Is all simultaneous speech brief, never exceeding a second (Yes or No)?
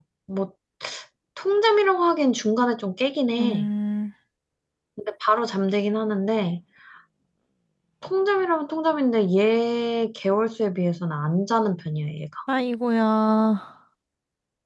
Yes